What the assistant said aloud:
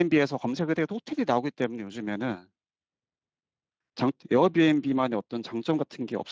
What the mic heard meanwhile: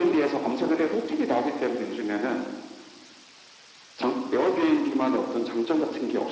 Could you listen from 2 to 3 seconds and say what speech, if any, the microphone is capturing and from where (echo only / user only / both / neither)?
echo only